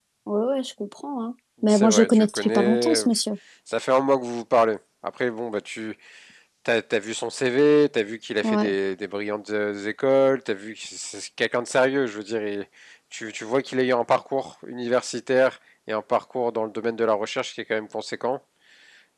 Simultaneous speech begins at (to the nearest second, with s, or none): 2 s